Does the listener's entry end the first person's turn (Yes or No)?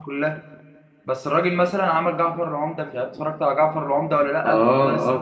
Yes